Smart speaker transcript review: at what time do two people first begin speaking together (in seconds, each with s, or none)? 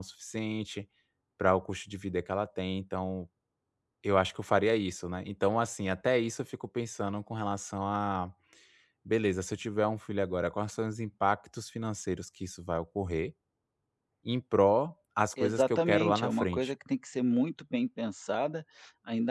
15.4 s